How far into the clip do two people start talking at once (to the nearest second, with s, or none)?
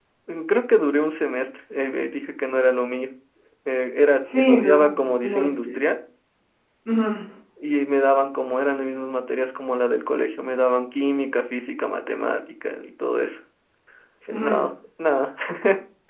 4 s